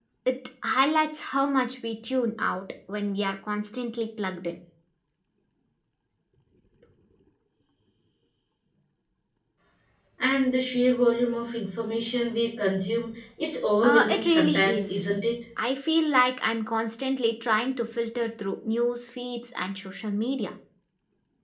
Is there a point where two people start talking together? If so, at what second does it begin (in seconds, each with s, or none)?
13.8 s